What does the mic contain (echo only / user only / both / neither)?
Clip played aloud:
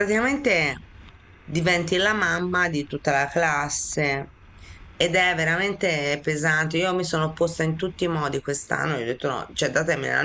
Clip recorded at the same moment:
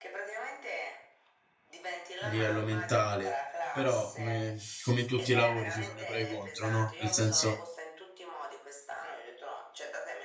both